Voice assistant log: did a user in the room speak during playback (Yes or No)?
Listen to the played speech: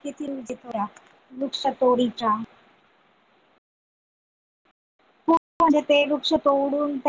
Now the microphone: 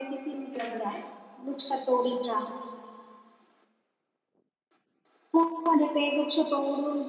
Yes